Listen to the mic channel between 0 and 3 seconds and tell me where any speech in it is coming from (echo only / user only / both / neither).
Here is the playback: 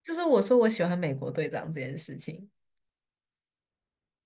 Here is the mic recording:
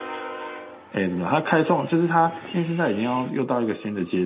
user only